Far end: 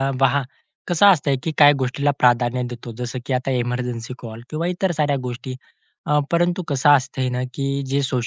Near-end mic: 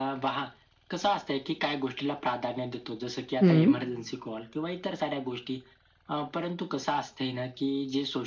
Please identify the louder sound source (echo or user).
user